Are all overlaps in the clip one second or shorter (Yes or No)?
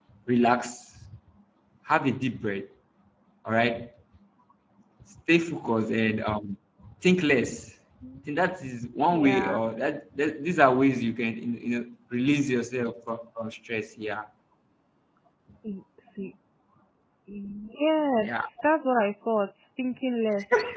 Yes